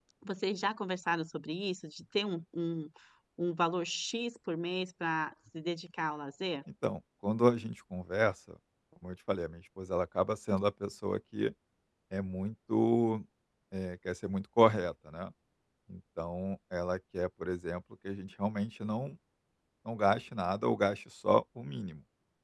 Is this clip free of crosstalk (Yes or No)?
Yes